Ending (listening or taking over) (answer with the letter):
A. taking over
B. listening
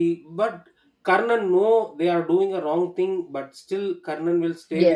B